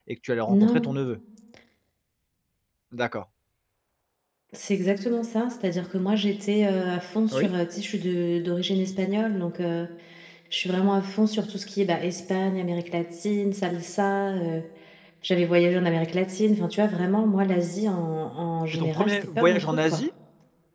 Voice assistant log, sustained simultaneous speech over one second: present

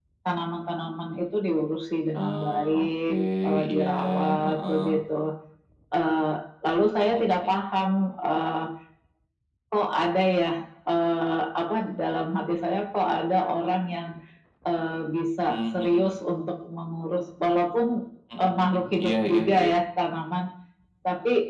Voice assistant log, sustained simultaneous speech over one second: present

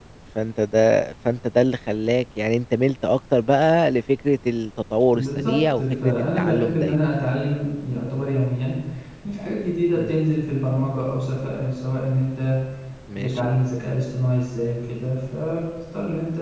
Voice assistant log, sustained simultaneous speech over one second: present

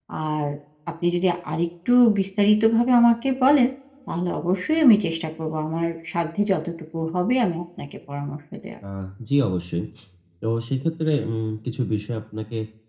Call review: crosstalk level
none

